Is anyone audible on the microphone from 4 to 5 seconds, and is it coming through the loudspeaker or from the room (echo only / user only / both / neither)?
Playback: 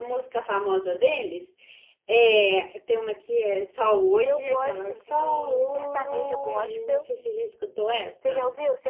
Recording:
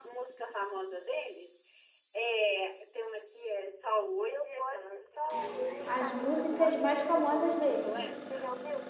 echo only